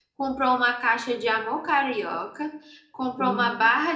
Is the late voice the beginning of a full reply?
No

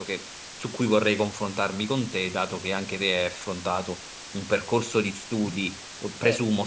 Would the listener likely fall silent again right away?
Yes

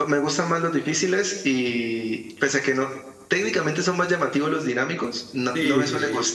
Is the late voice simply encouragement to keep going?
No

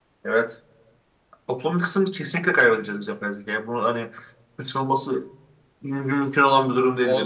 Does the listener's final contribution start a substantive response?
Yes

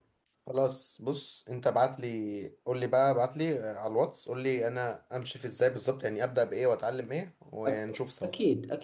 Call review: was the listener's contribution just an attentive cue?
No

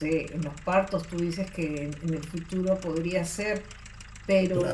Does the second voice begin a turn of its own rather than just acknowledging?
No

